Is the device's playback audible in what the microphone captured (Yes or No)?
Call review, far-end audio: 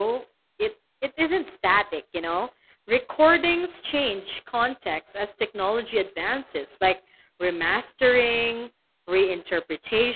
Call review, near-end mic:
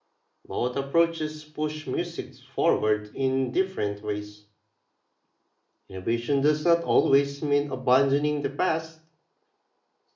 No